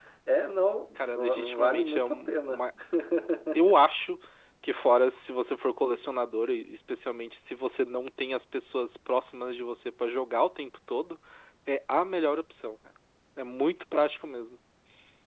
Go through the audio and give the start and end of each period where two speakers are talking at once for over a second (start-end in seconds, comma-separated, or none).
1.0-2.7